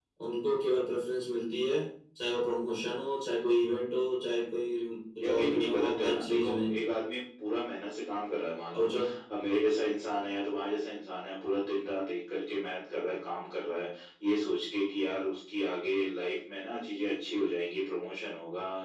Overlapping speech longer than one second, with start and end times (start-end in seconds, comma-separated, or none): 5.2-6.7